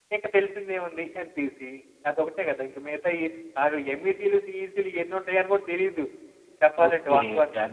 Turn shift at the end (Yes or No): Yes